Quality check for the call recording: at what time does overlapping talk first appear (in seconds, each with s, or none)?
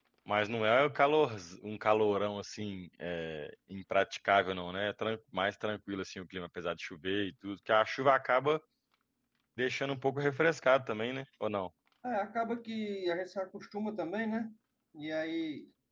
none